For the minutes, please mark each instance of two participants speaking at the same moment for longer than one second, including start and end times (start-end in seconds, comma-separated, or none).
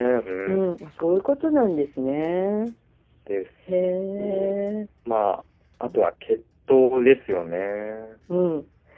none